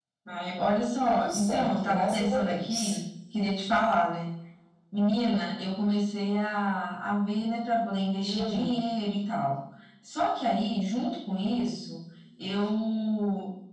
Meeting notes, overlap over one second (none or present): present